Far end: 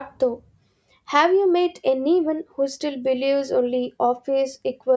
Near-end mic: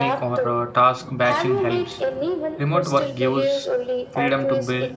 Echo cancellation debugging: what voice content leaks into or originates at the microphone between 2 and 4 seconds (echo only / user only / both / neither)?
both